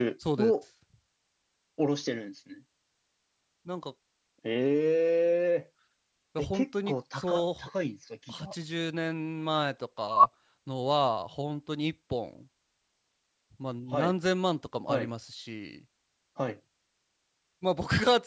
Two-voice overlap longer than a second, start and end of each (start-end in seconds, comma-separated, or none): 6.4-7.7